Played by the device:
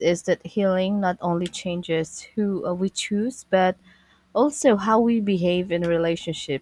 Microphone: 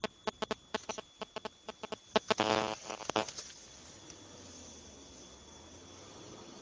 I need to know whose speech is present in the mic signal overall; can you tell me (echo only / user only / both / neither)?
neither